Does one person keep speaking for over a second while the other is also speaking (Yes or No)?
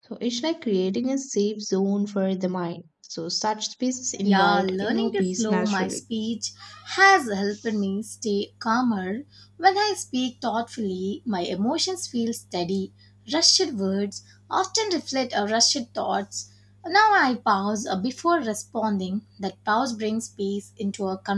Yes